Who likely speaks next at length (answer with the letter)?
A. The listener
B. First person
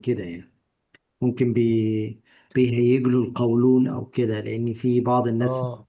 B